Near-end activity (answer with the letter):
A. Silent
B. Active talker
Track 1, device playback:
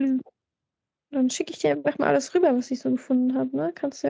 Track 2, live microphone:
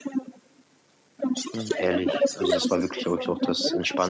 B